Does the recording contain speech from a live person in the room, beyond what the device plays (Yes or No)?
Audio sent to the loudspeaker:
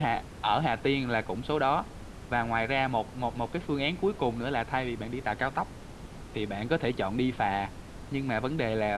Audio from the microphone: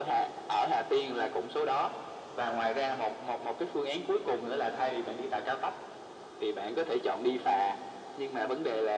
No